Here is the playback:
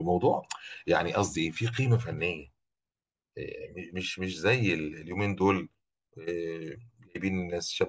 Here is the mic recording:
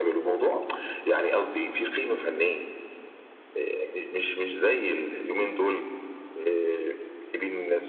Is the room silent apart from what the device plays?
Yes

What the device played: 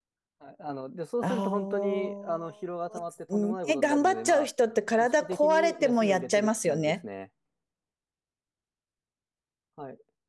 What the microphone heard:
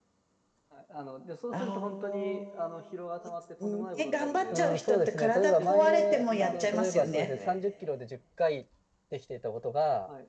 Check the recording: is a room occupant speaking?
Yes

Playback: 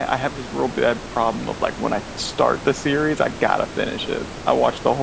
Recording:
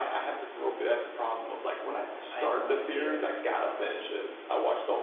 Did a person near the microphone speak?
Yes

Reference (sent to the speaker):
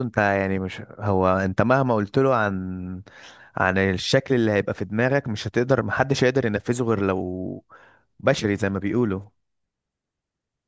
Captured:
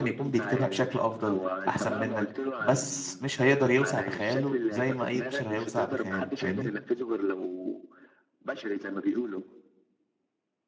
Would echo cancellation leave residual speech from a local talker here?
Yes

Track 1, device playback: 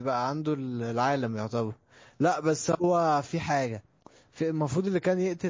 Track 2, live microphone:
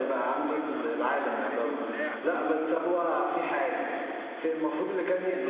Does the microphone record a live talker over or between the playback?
Yes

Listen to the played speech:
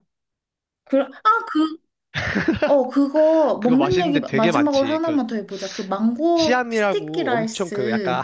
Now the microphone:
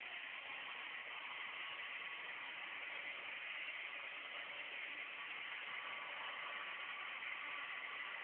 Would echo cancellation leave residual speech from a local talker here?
No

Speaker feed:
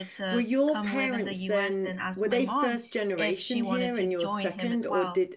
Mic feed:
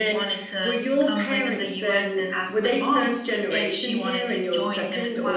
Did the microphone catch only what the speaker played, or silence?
Yes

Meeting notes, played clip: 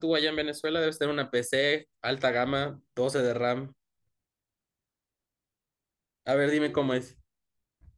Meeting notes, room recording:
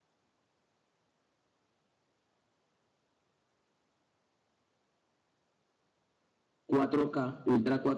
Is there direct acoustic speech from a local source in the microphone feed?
Yes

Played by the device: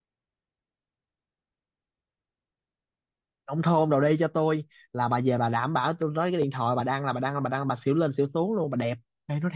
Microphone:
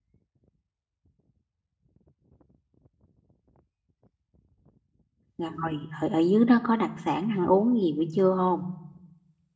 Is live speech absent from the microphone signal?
No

